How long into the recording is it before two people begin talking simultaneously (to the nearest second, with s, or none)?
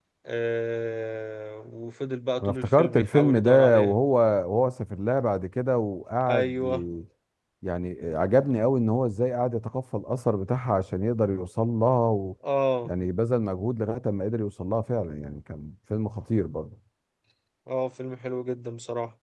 2 s